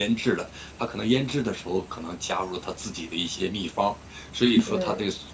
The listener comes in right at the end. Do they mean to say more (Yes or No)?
No